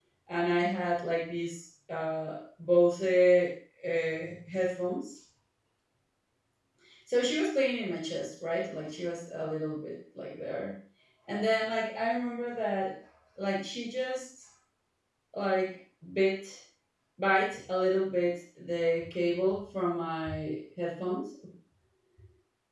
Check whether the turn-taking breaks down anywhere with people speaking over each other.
No

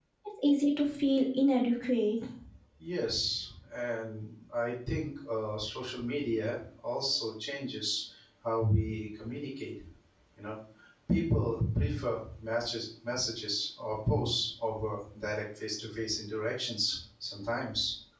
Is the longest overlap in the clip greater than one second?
No

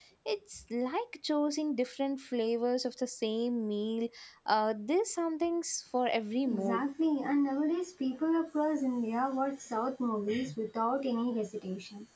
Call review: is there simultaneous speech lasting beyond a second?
No

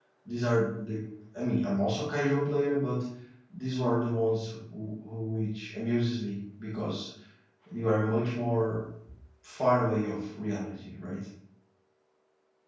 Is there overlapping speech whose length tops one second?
No

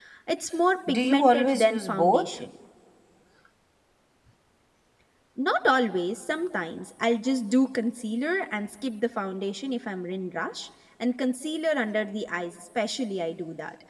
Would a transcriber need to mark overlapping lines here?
Yes, from 0.9 s

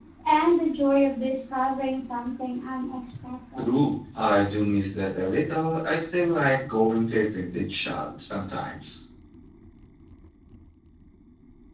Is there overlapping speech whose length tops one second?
No

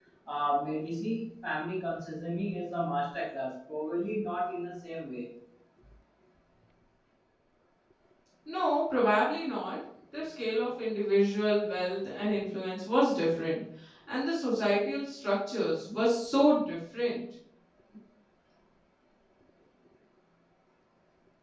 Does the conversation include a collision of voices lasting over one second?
No

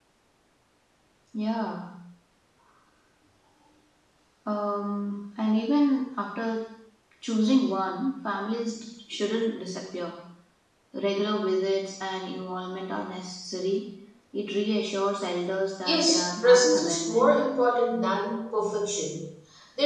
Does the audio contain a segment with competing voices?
Yes, from 15.8 s

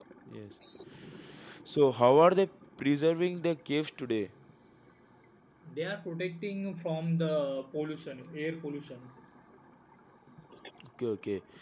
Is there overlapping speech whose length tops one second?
No

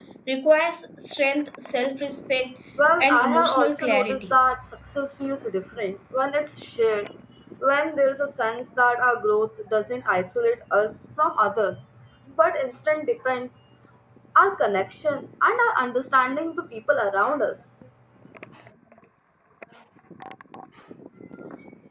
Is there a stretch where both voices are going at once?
Yes, from 3.0 s

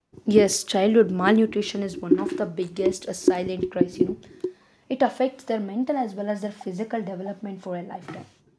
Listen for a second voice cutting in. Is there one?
No

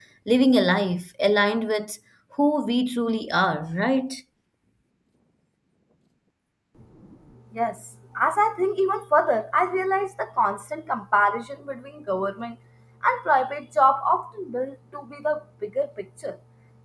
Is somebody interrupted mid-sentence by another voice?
No

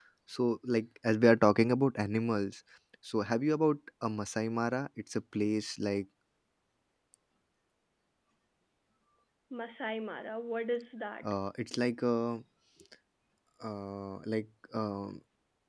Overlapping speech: No

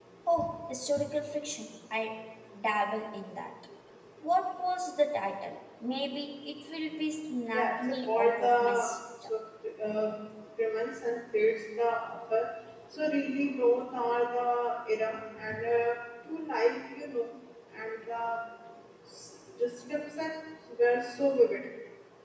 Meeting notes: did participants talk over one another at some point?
Yes, from 7.5 s

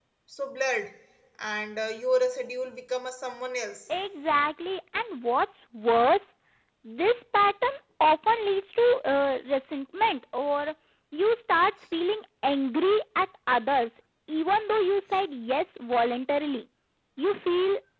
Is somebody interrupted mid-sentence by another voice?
No

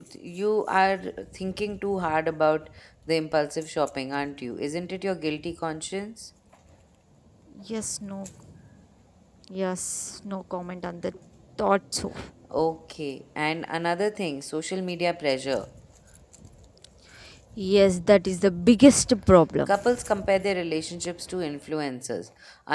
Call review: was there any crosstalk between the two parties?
No

